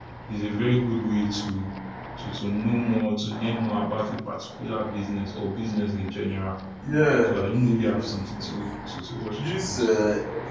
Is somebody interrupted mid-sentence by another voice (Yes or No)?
Yes